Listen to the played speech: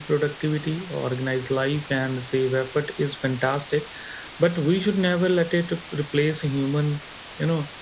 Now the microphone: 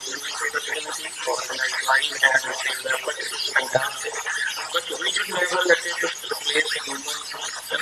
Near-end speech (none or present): none